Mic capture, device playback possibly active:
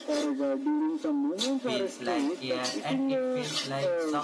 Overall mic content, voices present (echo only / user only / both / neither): both